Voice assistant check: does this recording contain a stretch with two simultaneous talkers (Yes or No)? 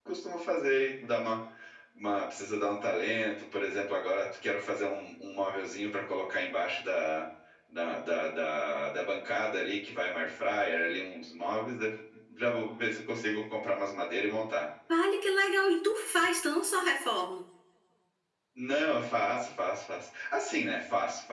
No